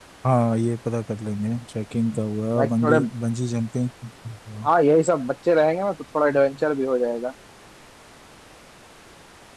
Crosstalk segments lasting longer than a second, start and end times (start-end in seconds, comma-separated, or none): none